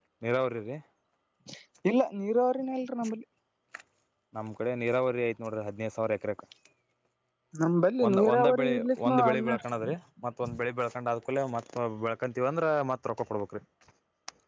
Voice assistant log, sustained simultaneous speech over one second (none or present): present